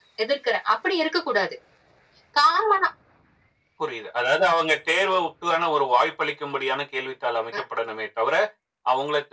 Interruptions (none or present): none